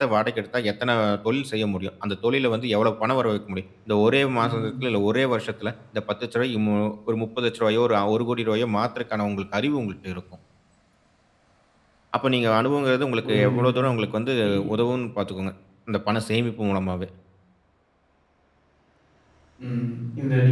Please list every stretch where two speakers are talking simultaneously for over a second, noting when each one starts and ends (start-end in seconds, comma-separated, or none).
none